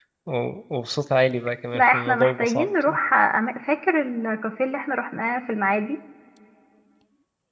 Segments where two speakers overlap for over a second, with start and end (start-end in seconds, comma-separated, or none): 1.7-3.0